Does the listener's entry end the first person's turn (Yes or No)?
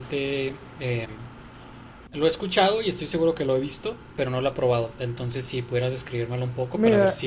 Yes